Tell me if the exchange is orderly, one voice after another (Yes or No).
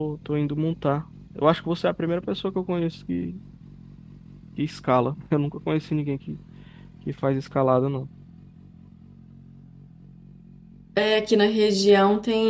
Yes